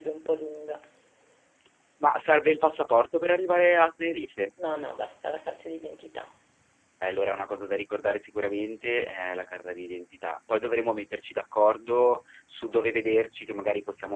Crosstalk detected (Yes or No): No